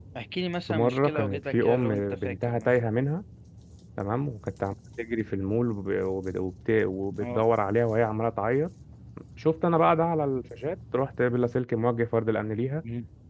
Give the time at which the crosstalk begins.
0.7 s

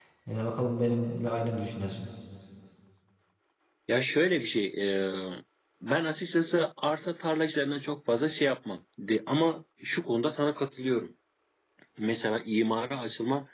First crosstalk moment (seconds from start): none

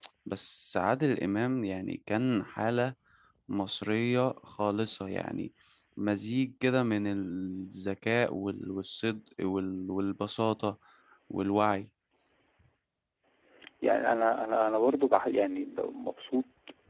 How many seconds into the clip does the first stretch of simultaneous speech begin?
none

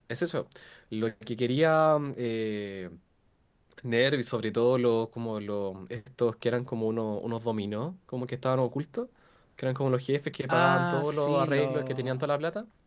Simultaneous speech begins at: 10.5 s

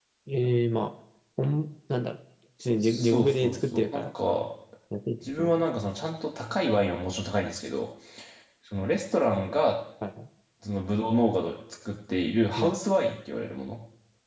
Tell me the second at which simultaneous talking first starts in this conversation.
2.8 s

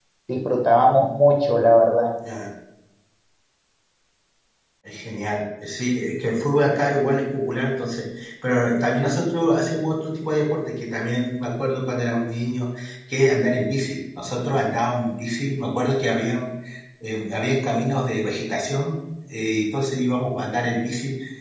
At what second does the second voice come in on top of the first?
none

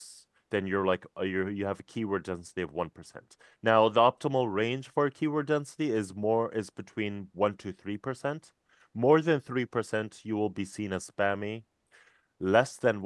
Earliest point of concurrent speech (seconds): none

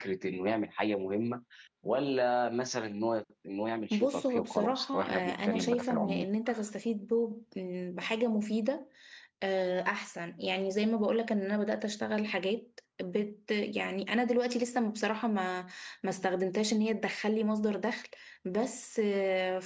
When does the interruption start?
3.9 s

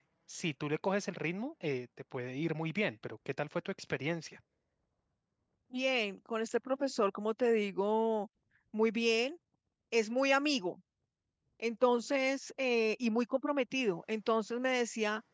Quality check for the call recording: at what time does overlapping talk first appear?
none

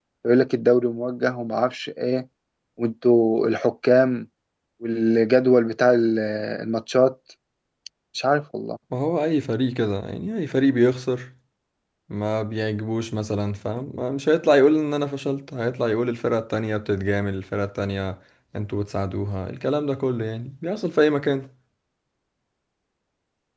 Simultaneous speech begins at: none

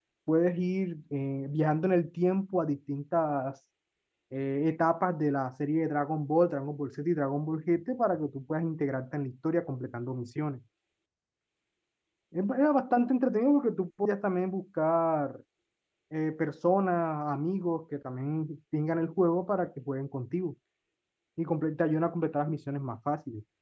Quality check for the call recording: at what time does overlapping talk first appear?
none

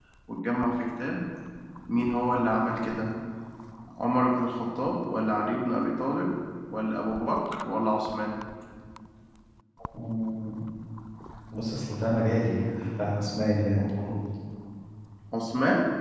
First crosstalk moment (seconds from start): none

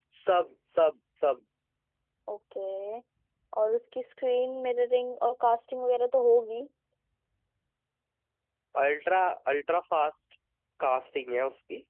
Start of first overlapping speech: none

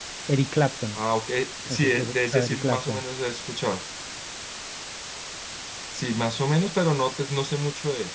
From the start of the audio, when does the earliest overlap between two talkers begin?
1.7 s

